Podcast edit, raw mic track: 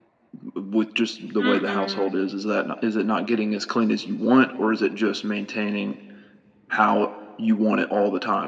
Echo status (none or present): present